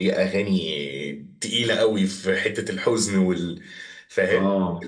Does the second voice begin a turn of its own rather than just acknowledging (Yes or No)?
Yes